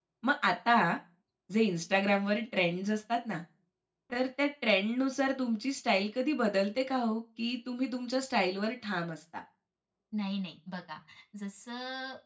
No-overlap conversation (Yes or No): Yes